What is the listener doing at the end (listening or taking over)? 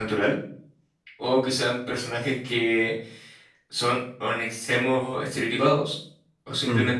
listening